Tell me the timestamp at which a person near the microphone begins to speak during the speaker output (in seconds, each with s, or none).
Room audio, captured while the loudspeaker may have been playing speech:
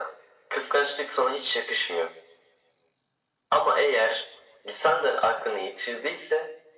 none